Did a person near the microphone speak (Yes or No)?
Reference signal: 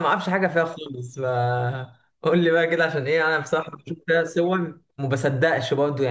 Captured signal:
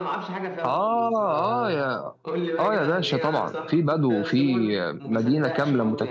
Yes